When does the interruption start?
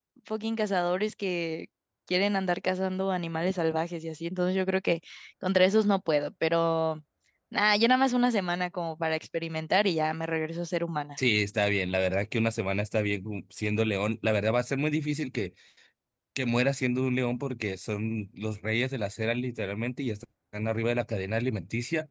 none

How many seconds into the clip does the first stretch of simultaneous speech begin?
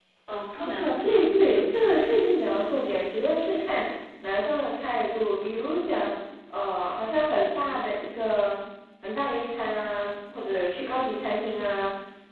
1 s

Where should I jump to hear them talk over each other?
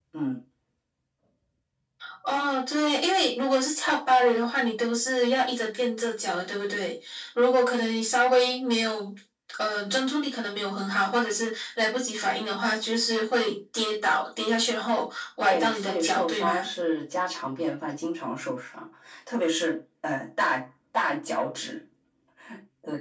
15 s

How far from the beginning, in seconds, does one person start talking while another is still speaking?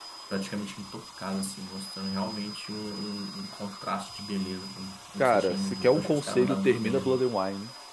5 s

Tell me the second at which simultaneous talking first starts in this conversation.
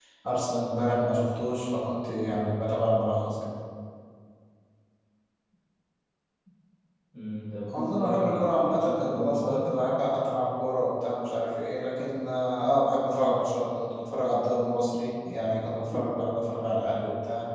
8 s

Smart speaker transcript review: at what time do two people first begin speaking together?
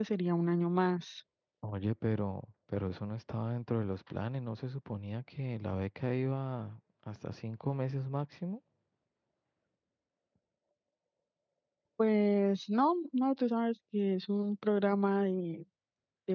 none

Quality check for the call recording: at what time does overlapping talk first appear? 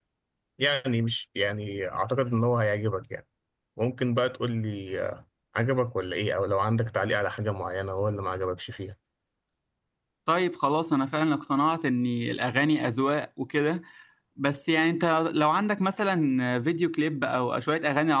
none

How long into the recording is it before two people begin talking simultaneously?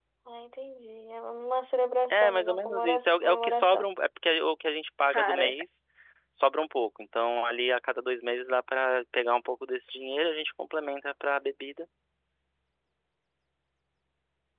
2 s

